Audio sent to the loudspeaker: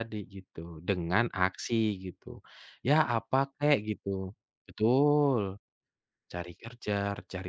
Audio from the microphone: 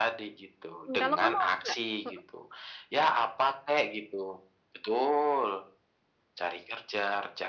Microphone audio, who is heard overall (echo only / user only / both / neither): both